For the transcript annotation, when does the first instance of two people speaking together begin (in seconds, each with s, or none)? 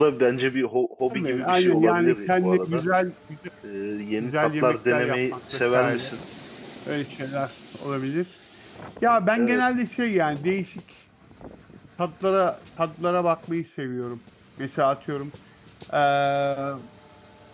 1.1 s